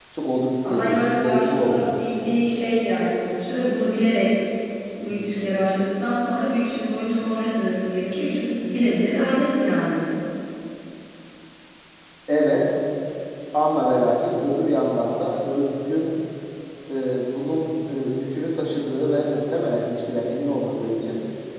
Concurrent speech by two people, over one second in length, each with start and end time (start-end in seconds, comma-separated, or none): 0.7-2.1